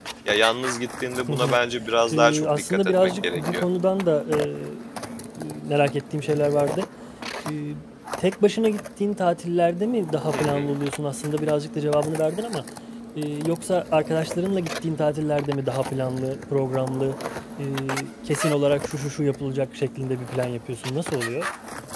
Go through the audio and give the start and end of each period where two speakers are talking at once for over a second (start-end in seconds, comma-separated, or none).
2.1-3.6